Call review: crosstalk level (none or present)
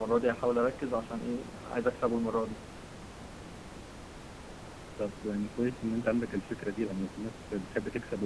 none